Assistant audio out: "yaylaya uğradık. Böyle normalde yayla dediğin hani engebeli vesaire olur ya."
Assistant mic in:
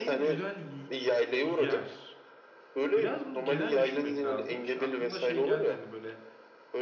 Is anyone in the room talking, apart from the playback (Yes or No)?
Yes